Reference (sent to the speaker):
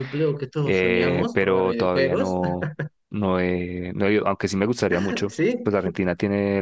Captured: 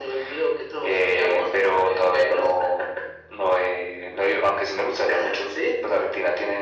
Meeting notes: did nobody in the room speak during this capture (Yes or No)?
Yes